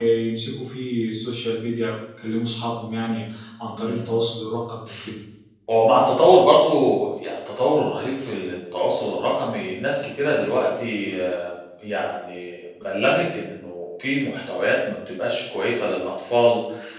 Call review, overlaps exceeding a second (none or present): none